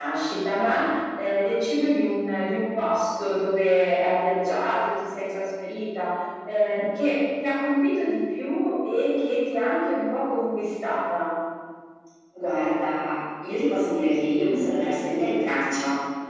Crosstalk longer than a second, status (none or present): none